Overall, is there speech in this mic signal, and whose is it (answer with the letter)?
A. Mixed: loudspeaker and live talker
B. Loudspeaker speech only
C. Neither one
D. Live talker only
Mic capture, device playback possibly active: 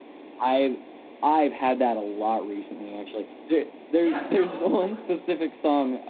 A